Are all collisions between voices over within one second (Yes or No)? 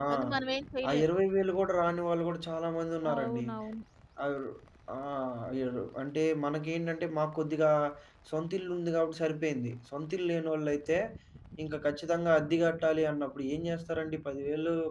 Yes